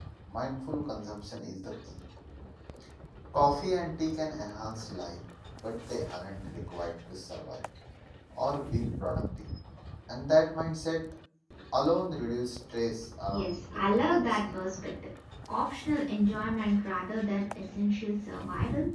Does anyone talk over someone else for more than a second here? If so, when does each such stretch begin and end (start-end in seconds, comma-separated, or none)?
13.3-14.5